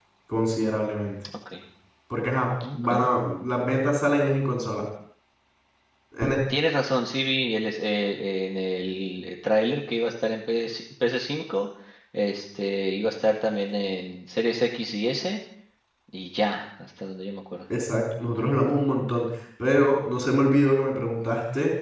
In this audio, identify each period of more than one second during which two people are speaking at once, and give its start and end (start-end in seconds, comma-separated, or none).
none